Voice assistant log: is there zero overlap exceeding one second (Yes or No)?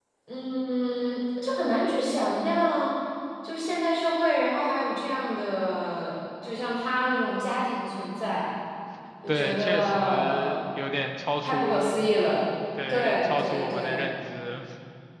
No